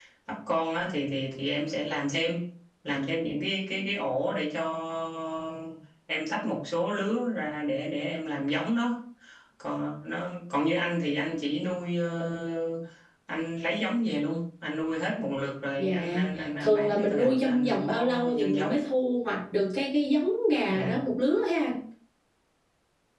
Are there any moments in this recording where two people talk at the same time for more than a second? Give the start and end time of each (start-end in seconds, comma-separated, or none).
16.6-18.8